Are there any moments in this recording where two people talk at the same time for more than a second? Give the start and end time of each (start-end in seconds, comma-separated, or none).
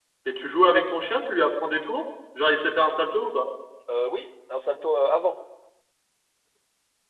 none